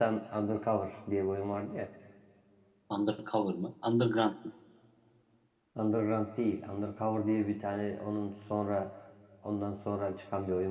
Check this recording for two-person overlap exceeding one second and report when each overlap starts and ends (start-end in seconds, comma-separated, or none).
none